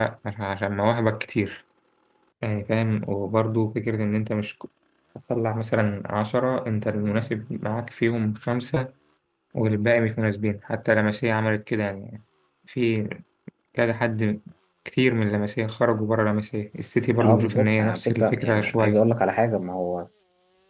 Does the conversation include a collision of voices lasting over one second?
Yes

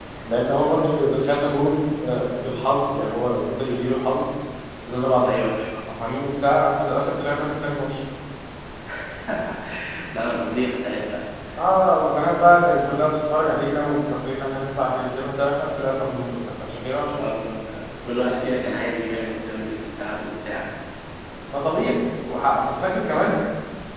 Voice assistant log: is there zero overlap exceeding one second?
Yes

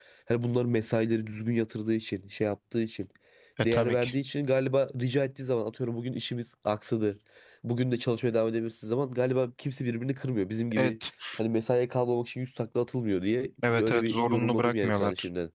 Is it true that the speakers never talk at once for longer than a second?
No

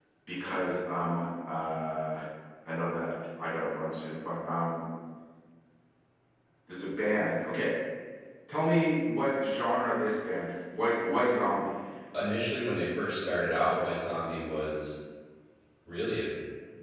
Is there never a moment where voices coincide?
Yes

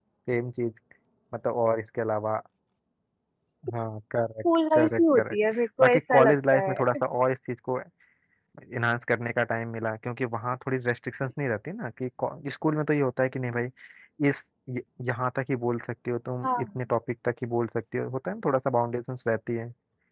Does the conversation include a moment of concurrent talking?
Yes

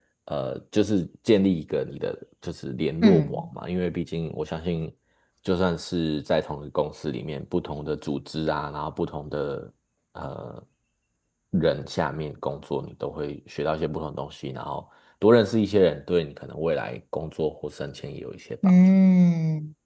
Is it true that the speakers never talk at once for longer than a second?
Yes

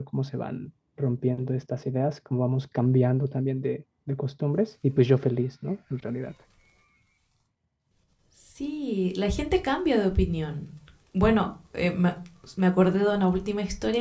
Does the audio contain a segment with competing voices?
No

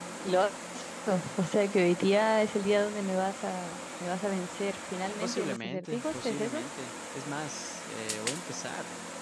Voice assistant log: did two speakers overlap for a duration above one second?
Yes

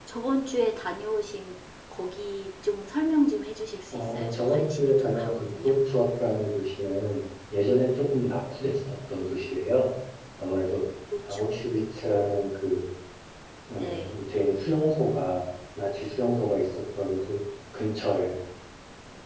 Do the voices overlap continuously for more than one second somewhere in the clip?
Yes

